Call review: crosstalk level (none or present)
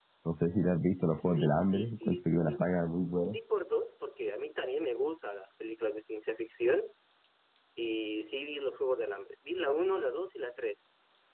present